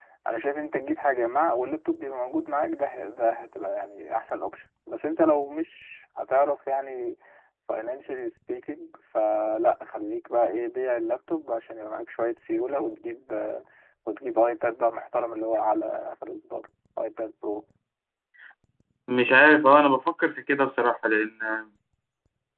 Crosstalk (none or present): none